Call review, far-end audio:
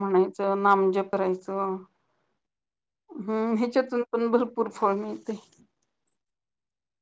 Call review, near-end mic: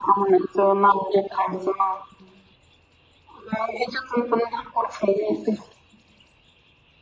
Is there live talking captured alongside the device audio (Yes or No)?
No